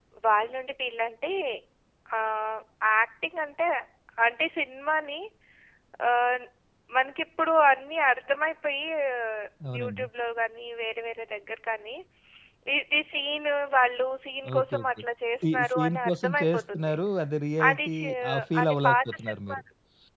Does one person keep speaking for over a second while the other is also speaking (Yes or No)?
Yes